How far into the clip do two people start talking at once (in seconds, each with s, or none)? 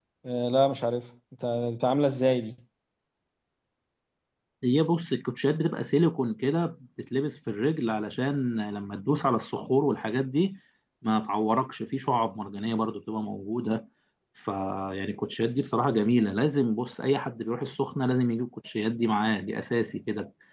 none